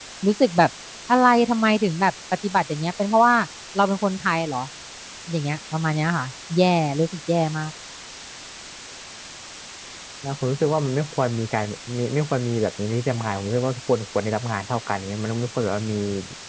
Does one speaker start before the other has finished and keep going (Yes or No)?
No